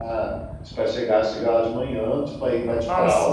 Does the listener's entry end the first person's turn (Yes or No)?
No